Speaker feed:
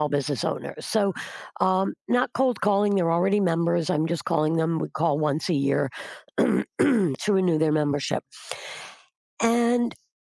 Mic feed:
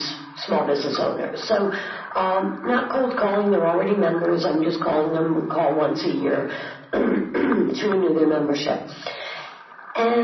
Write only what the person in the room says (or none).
none